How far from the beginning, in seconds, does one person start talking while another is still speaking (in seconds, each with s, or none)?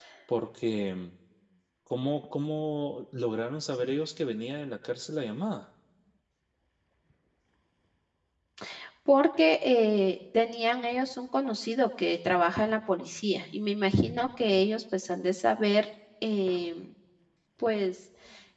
none